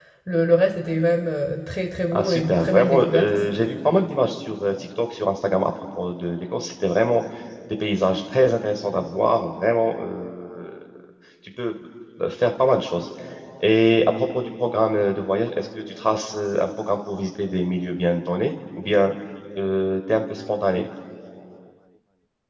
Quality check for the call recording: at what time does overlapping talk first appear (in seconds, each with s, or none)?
2.1 s